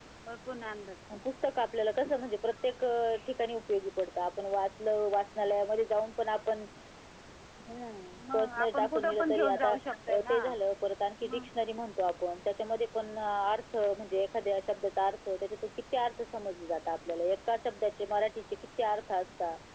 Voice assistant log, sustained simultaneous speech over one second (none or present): present